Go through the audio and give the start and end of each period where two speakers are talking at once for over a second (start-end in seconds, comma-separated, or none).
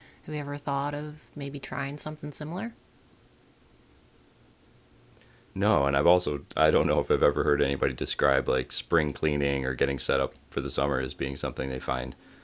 none